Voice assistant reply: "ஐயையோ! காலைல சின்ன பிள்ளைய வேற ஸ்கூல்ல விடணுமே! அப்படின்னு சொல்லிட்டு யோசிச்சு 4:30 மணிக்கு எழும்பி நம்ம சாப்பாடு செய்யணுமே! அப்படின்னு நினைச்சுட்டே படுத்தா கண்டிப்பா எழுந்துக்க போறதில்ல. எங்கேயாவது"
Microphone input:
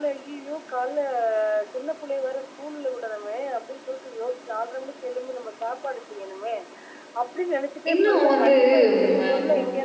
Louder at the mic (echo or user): user